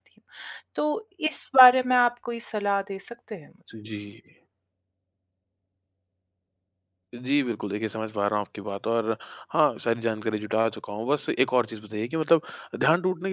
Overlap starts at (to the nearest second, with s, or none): none